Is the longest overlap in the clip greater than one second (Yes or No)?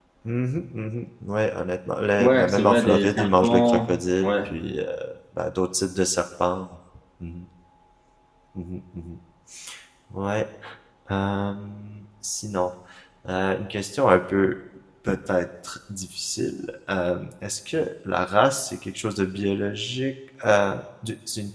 Yes